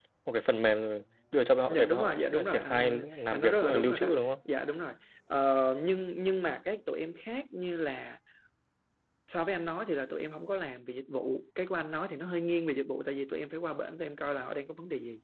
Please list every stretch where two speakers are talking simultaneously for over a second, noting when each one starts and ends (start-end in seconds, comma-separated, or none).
1.7-4.1